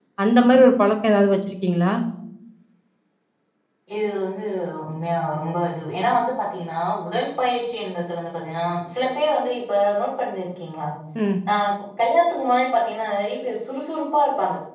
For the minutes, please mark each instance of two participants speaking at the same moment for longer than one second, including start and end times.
none

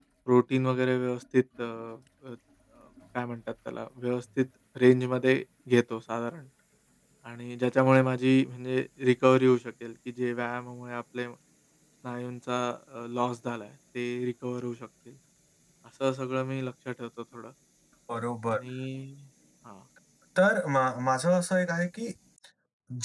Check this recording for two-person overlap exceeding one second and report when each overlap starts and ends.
none

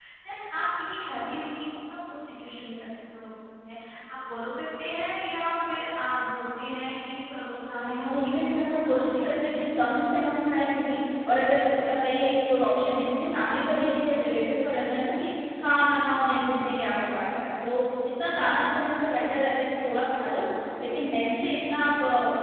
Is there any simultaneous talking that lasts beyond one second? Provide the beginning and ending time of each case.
7.7-9.6

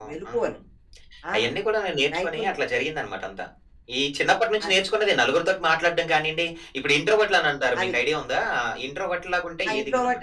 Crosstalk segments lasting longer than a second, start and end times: none

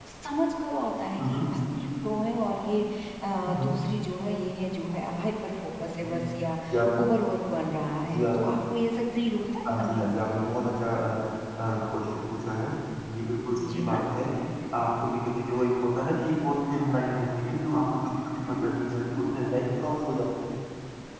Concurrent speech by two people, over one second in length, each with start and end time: none

